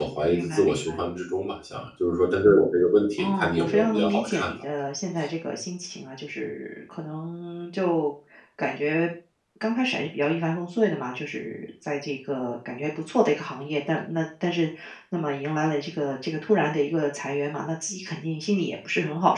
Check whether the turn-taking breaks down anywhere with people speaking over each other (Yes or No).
Yes